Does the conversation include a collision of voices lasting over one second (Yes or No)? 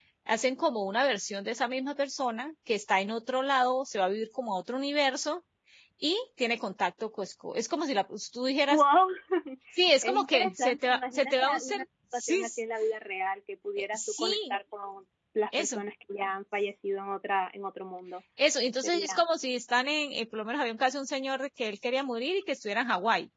Yes